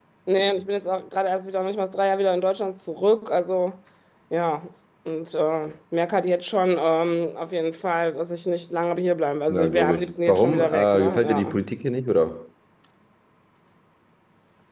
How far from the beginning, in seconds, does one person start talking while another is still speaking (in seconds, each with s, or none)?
9.5 s